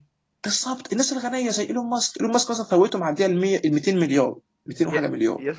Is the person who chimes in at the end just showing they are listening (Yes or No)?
No